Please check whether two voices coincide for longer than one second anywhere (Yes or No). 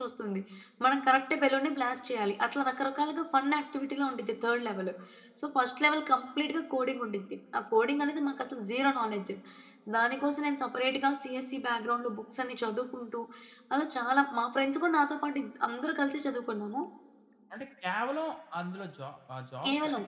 No